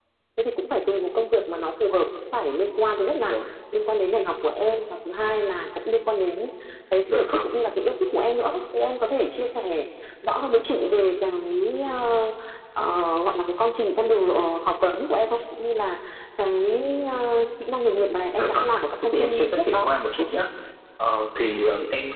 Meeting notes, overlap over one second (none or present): present